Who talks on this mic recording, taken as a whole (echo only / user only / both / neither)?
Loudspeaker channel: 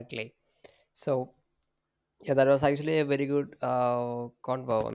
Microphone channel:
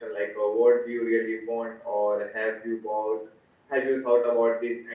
user only